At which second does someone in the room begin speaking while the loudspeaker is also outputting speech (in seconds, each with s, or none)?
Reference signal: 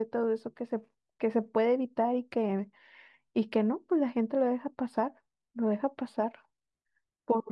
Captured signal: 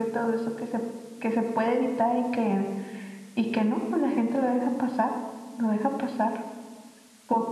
none